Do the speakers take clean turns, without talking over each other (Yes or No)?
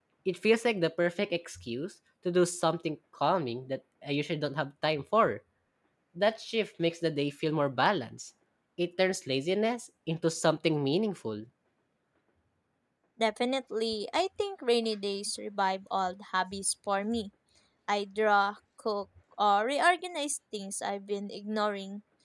Yes